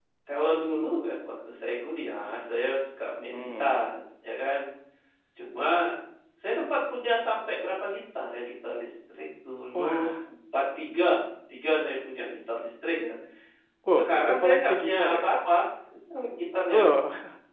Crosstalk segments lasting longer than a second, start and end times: 14.0-15.3

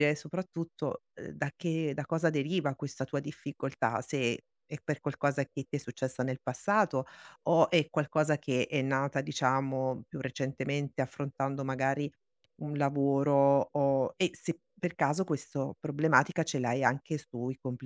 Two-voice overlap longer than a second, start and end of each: none

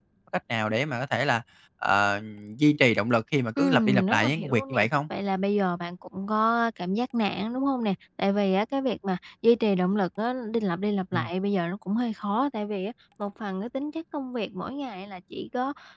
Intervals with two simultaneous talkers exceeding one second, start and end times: 3.6-4.9

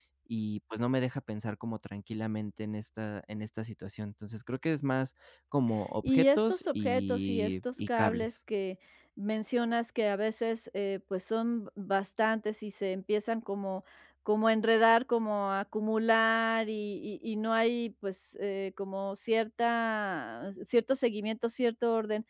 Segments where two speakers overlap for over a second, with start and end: 6.0-8.4

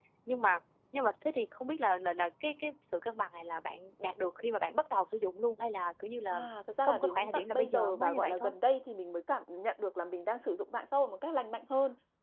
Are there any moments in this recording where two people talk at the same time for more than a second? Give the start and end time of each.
6.8-8.5

